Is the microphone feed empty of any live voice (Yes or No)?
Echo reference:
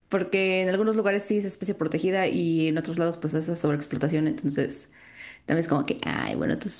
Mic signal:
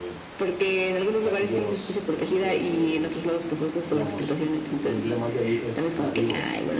No